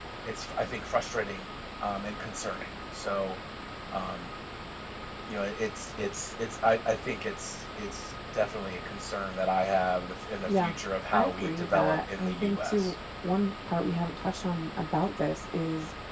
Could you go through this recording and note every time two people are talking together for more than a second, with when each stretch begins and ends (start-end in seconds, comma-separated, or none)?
11.1-12.9